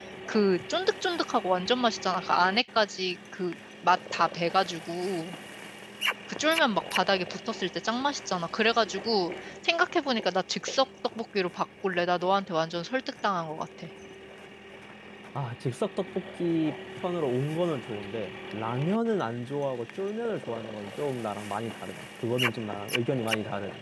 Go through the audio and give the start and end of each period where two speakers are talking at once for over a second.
none

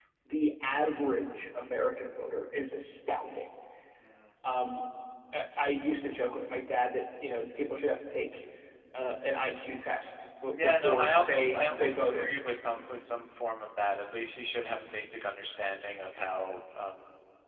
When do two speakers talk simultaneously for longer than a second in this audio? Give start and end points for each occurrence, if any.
10.5-12.3

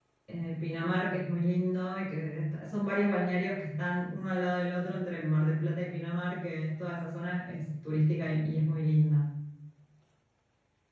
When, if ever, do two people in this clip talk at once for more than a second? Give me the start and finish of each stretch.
none

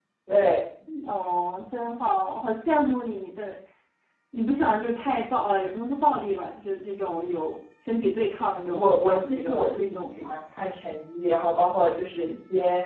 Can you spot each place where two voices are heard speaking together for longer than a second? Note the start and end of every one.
8.7-10.4

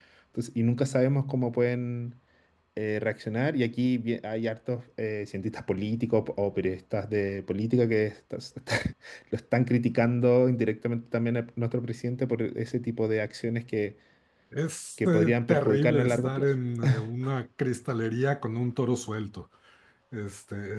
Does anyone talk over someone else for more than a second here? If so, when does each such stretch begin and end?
15.1-16.4

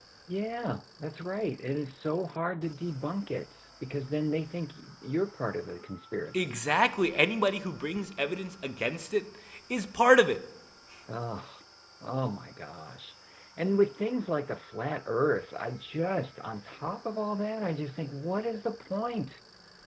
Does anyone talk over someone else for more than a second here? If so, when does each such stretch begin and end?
none

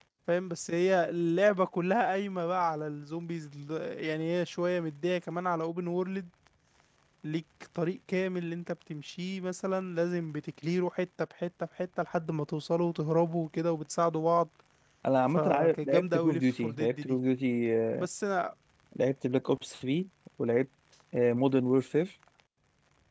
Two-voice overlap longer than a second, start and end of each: 15.4-17.2

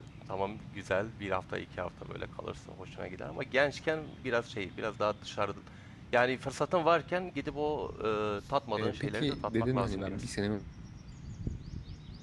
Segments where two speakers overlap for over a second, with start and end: 8.8-10.3

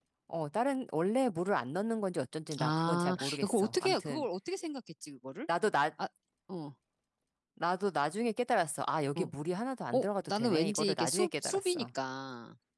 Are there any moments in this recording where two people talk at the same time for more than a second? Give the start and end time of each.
2.6-4.3, 10.0-11.9

